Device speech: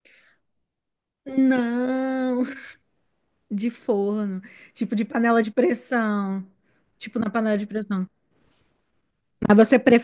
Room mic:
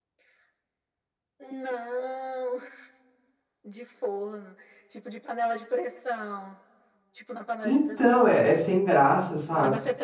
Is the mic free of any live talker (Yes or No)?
No